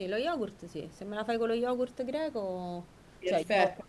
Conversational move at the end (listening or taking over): taking over